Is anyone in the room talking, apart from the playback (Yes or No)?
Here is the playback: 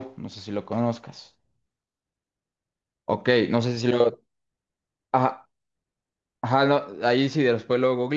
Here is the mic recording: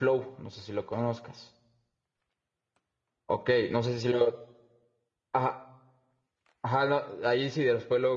No